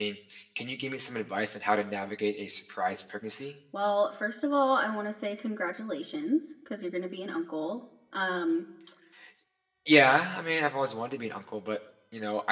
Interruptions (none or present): none